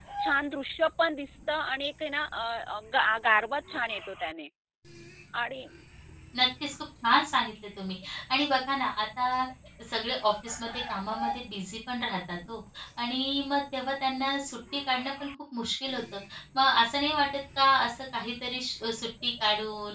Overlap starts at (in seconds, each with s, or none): none